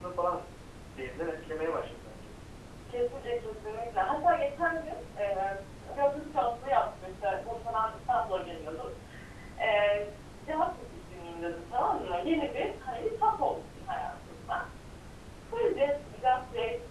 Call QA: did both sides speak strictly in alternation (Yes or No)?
Yes